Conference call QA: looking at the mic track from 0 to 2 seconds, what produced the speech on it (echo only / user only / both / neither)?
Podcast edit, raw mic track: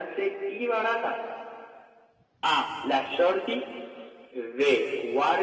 echo only